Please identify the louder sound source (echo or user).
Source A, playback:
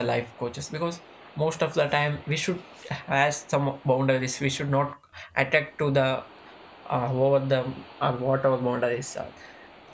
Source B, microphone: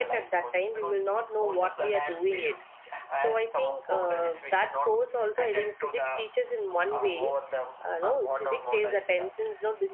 user